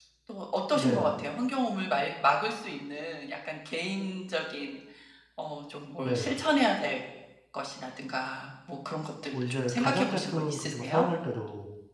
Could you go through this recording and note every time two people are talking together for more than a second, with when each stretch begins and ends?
9.3-11.1

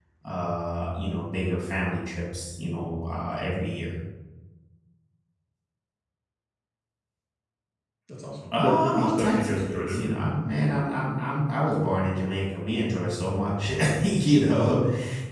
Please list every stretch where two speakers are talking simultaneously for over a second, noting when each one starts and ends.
8.5-10.1

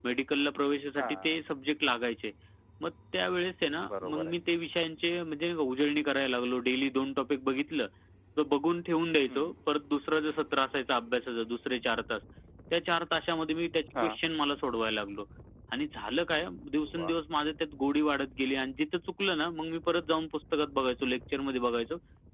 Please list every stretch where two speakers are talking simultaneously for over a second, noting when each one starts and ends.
none

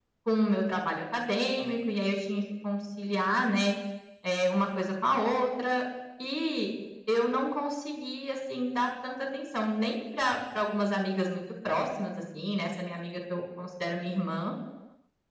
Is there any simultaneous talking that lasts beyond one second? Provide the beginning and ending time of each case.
none

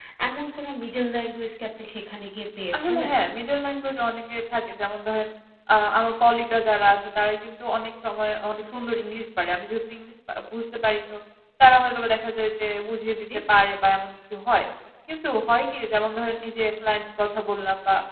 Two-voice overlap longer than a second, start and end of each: none

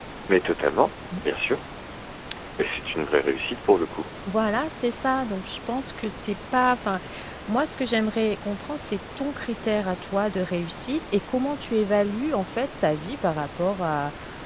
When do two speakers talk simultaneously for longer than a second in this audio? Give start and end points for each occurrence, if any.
none

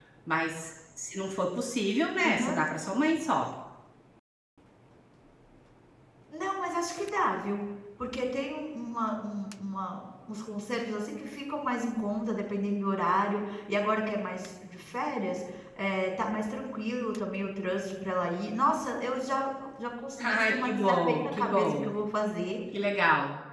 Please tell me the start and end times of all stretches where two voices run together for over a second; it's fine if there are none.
20.2-21.9

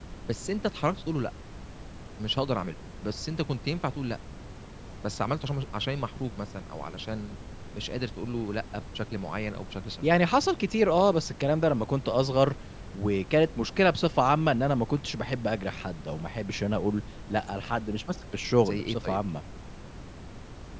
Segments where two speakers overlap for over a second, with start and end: none

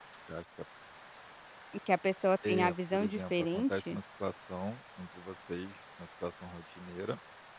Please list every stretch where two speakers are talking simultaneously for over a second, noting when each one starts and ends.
2.5-4.0

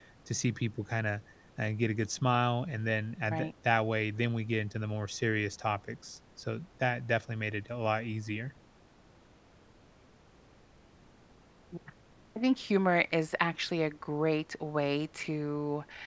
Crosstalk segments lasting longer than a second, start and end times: none

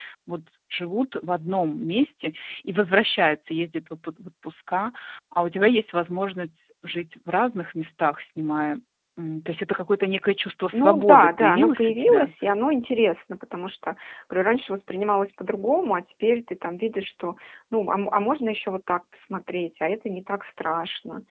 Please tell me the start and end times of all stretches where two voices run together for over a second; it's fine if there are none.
10.7-12.3

